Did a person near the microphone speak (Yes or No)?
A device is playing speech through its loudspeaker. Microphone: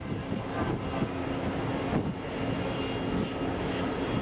No